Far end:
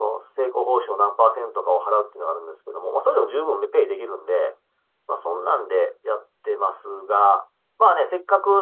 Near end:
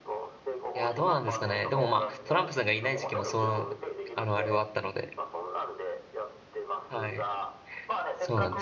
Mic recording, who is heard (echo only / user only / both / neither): both